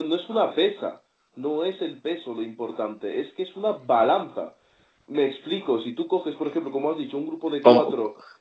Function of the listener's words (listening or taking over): listening